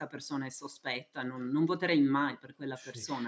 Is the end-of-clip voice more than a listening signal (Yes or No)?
Yes